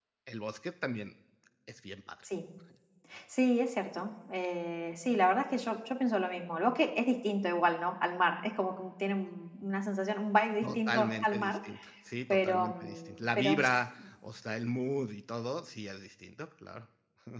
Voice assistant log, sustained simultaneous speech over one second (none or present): present